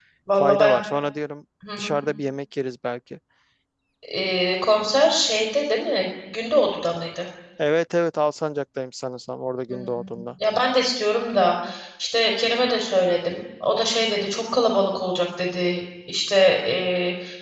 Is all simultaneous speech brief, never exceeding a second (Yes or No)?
Yes